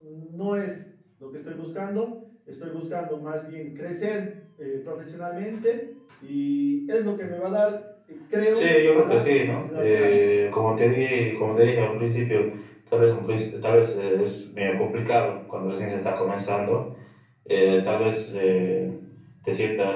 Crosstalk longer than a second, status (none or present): present